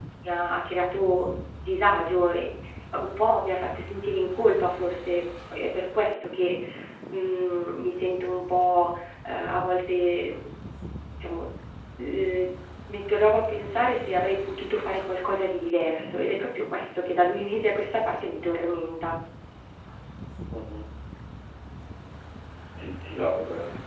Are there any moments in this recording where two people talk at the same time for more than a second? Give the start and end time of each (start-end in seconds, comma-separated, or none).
none